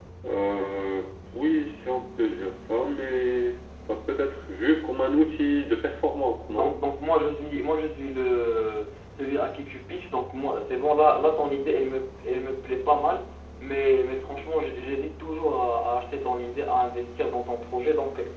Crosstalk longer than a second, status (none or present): none